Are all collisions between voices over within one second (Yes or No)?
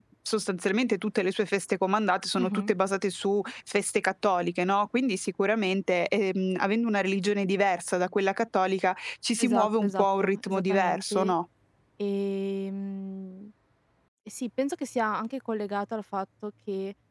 No